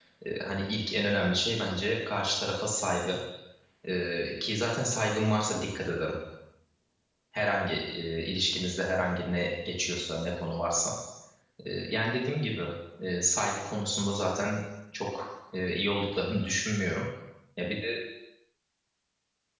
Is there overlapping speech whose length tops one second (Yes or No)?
No